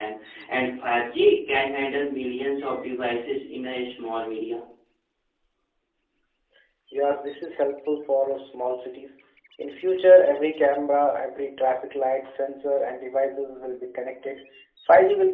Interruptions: none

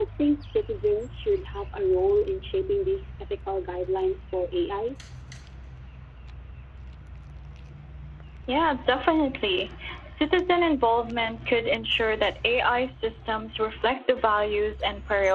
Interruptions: none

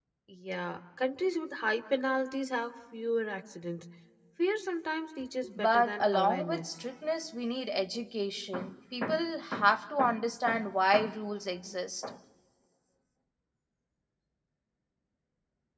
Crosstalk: present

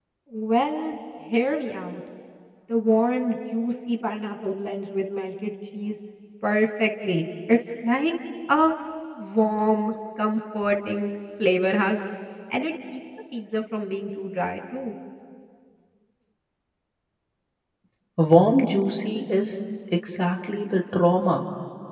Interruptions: none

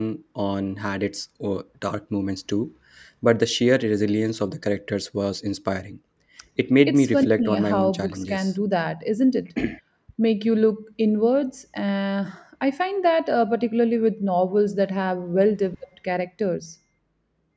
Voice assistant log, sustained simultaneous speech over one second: present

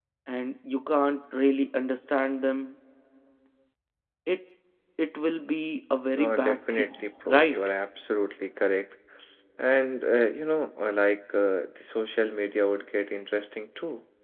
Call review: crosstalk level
present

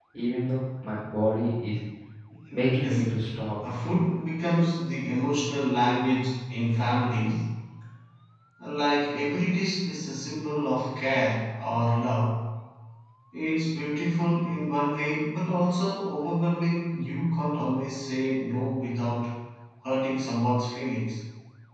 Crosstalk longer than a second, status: none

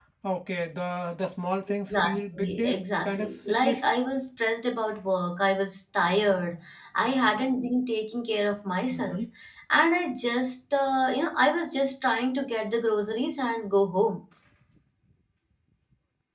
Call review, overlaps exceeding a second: present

